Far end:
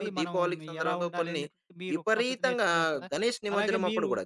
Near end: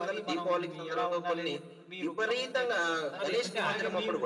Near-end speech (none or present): present